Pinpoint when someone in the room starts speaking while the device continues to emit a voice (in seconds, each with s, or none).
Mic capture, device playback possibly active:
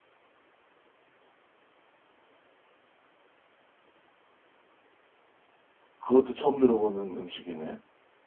6.0 s